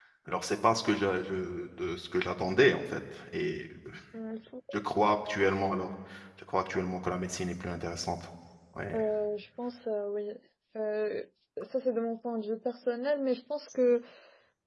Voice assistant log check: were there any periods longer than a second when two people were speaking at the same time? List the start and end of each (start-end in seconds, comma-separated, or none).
none